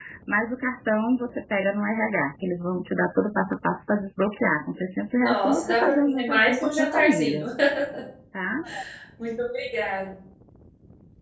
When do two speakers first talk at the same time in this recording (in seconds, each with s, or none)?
5.2 s